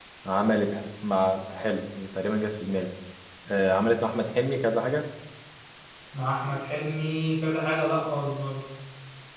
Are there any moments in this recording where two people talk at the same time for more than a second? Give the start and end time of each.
none

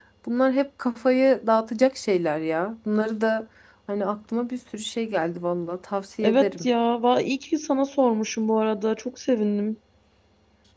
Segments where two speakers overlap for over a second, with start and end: none

